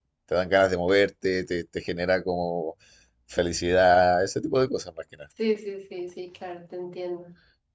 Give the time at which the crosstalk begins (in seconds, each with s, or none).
none